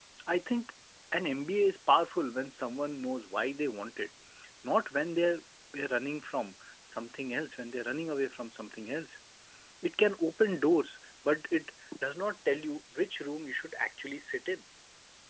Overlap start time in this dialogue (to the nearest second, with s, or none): none